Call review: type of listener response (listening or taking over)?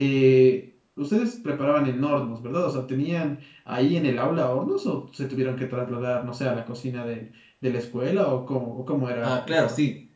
taking over